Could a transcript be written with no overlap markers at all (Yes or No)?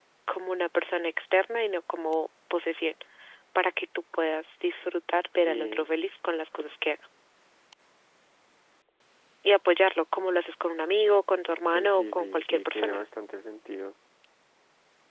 No